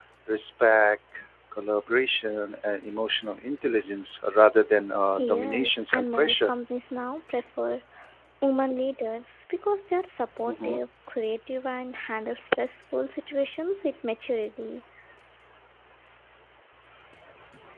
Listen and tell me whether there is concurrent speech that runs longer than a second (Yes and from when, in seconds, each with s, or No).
Yes, from 5.2 s